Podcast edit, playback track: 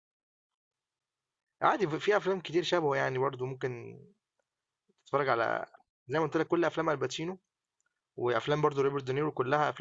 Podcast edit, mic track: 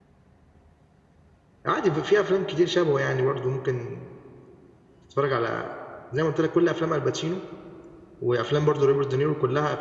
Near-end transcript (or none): none